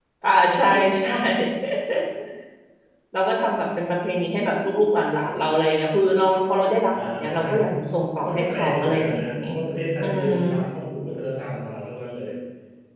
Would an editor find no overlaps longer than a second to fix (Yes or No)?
No